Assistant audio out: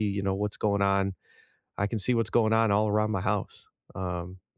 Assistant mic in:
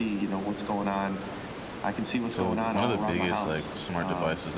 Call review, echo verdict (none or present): present